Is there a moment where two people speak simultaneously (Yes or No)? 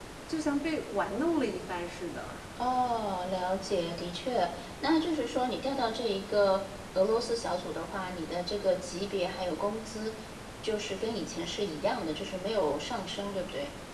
No